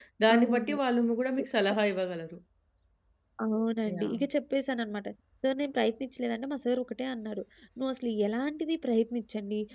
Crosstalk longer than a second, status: none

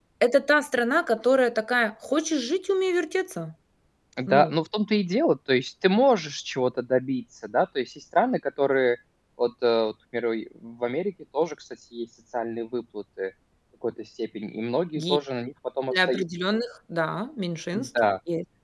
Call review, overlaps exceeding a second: none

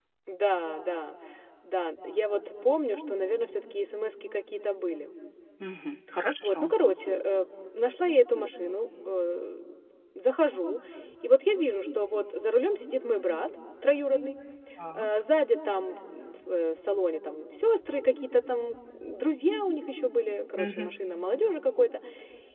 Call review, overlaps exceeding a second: none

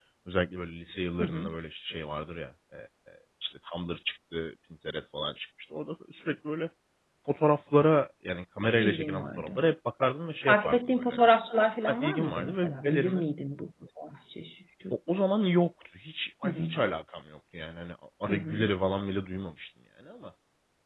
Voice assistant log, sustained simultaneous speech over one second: present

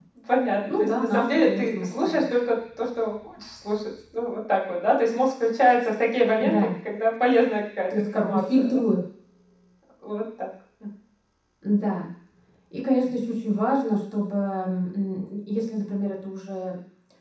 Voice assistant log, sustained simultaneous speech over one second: present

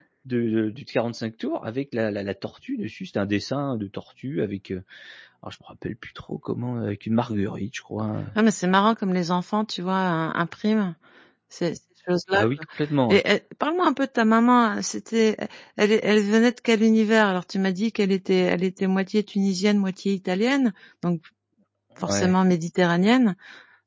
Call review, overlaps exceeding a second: none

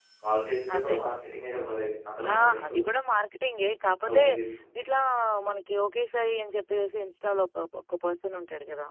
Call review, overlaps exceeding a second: none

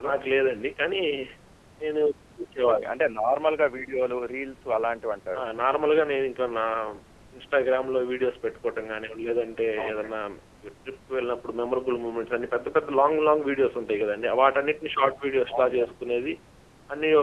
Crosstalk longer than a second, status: none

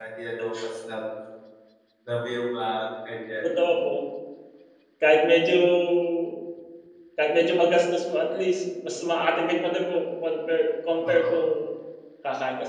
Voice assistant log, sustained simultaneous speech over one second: none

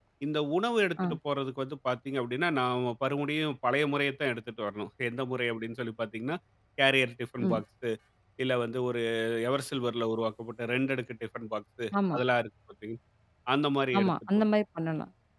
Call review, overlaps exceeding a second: none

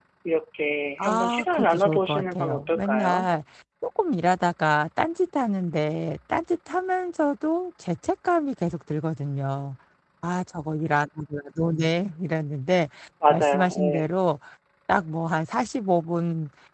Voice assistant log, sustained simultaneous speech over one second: present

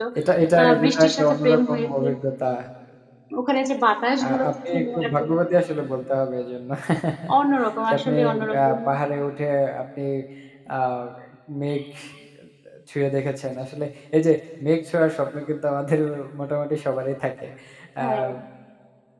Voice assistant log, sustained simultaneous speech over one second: present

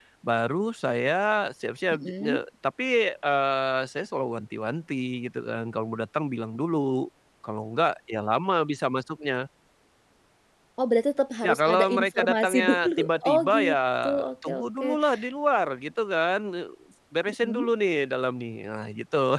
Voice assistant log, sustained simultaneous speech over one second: present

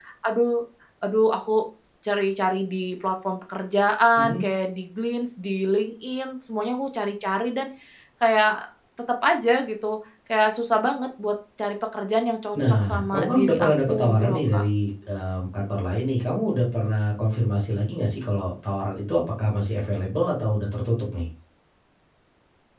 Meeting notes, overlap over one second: present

